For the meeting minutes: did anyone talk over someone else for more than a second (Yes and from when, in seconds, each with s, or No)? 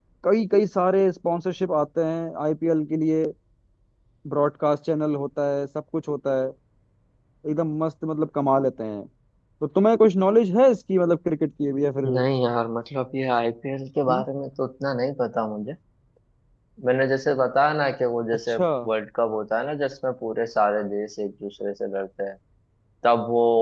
No